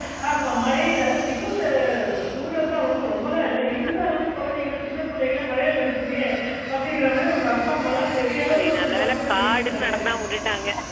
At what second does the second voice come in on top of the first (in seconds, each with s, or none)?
8.5 s